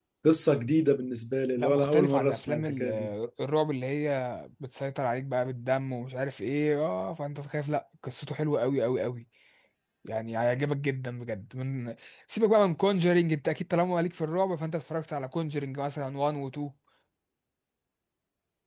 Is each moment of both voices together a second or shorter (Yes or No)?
No